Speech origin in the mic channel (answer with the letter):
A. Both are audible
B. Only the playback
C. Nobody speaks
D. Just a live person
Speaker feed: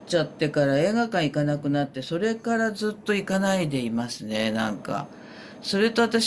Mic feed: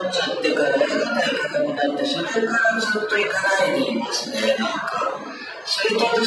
B